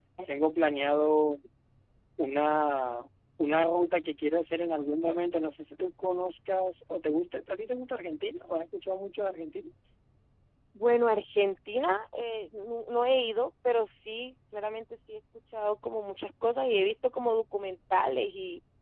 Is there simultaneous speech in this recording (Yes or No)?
No